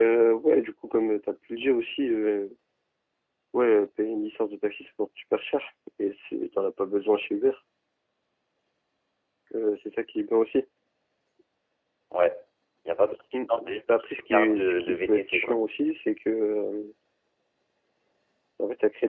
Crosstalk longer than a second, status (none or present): present